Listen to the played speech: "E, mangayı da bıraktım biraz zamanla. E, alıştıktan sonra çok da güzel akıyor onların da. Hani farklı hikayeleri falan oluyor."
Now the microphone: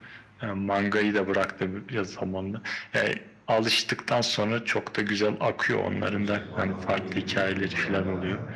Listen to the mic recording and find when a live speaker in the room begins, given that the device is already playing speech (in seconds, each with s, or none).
5.8 s